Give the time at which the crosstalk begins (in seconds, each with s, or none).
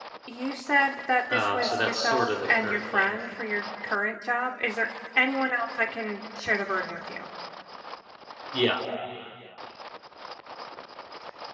1.3 s